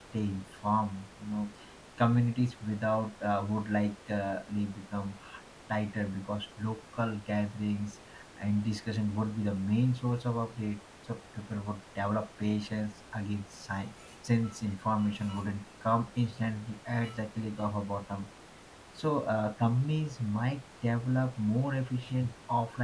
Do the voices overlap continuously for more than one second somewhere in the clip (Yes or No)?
No